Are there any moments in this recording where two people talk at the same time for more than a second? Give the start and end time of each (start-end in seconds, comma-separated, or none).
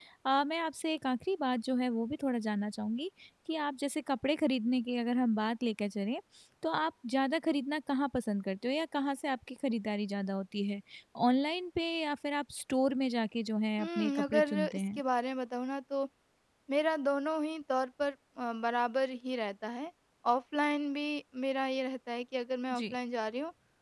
13.8-15.0